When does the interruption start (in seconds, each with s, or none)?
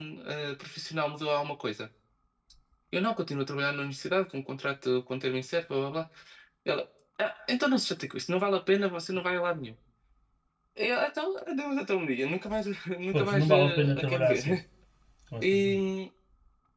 13.1 s